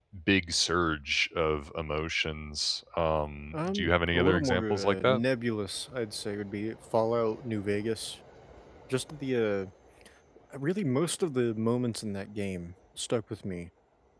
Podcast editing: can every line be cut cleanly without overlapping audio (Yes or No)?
No